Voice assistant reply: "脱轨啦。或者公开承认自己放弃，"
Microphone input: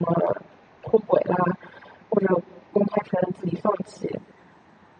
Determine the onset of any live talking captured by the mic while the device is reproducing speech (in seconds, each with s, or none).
none